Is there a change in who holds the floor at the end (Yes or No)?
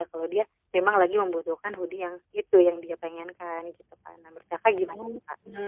Yes